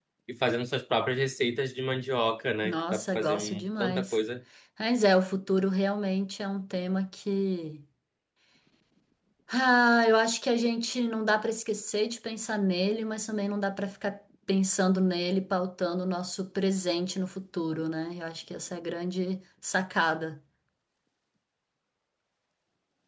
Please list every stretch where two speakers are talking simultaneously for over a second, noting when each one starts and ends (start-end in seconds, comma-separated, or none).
2.6-4.2